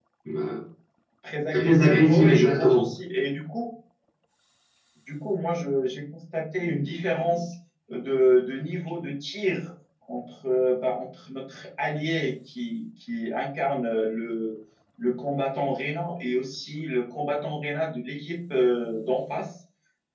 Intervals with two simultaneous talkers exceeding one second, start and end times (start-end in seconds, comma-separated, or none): 1.5-2.9